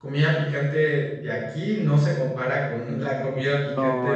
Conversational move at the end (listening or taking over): taking over